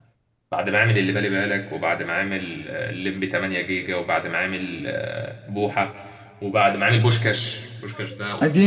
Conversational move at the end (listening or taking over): taking over